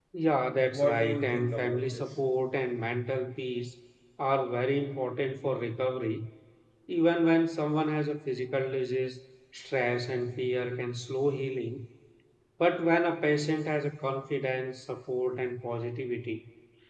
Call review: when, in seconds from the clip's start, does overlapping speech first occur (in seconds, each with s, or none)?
0.7 s